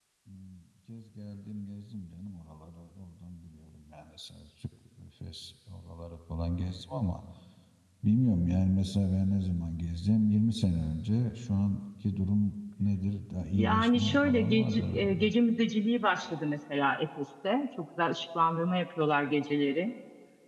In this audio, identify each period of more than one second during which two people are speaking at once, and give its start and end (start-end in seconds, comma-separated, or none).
13.5-15.3